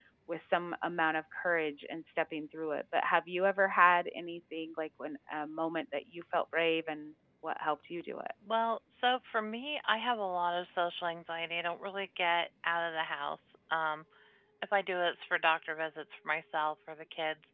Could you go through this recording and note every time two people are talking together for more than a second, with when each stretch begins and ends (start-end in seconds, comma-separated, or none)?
none